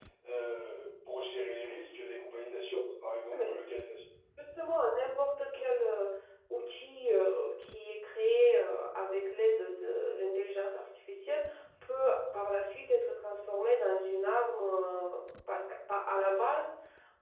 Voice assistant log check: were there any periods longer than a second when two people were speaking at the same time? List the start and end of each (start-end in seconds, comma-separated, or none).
none